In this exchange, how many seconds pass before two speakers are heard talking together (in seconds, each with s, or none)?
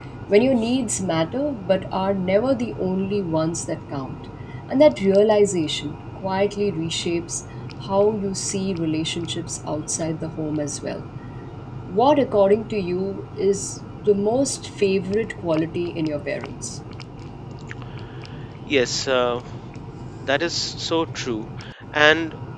none